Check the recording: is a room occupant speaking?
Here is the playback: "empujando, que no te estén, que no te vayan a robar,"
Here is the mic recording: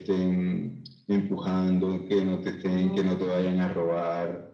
Yes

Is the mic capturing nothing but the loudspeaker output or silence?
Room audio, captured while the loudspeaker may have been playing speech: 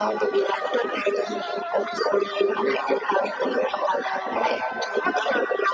Yes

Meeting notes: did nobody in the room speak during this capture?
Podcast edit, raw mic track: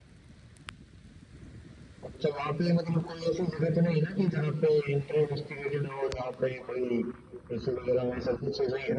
Yes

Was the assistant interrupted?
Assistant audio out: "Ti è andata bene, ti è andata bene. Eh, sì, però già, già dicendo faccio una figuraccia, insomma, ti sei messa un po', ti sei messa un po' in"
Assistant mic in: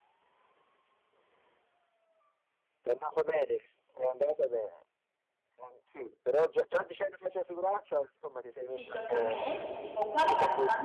Yes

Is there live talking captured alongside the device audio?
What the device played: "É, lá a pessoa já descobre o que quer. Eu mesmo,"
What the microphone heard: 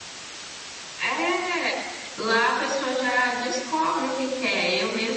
No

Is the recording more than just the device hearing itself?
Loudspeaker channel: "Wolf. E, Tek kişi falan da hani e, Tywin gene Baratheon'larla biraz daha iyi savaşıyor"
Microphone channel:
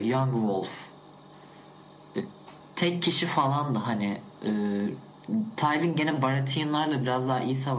No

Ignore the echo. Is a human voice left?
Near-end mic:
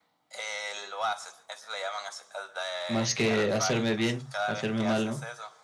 Yes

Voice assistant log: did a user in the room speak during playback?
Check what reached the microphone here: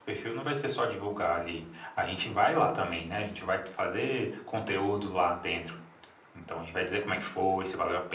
Yes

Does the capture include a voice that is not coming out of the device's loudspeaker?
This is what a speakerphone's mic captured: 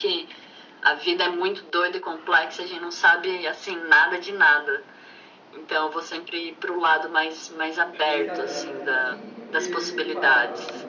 Yes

